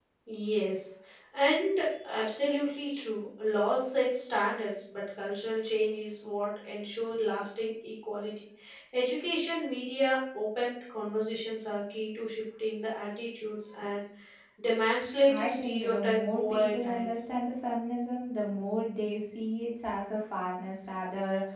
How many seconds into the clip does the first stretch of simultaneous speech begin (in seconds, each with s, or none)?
15.3 s